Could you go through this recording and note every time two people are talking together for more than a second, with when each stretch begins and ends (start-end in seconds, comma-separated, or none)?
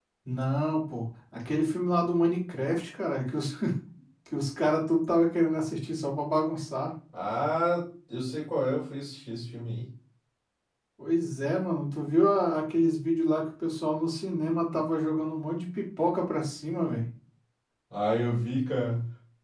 none